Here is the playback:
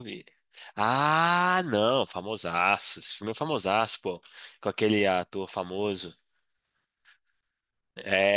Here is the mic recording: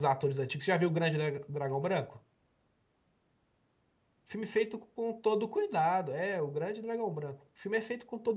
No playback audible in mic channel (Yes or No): Yes